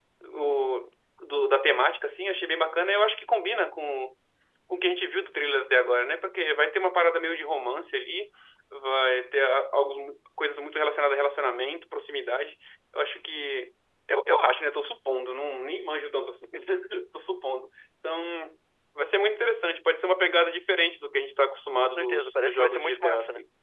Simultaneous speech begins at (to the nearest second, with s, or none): 22 s